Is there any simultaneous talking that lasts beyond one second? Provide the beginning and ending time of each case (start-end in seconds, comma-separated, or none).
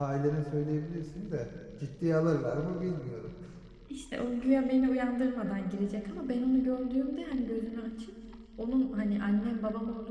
none